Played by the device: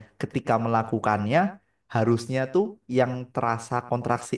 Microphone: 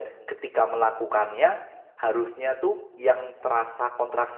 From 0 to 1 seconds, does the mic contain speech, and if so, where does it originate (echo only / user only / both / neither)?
echo only